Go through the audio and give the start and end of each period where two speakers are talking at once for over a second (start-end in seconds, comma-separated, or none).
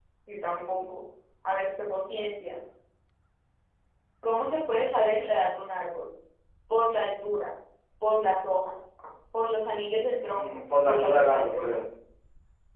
10.2-11.8